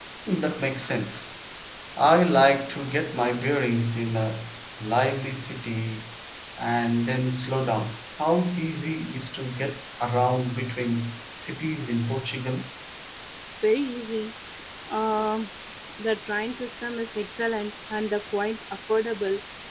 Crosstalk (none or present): none